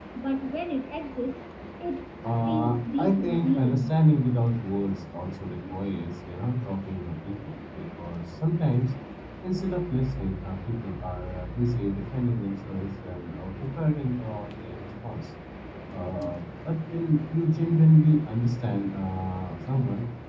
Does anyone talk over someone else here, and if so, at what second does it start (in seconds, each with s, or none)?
2.5 s